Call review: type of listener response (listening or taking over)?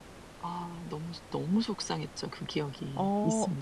taking over